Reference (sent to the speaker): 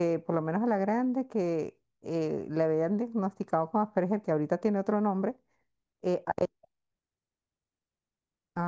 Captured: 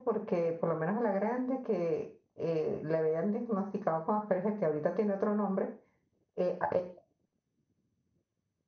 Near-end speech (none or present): none